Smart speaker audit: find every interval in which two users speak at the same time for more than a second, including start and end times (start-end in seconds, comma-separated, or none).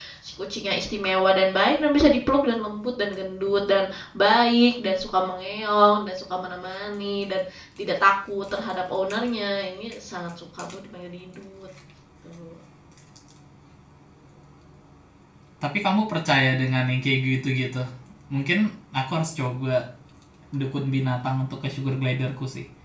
none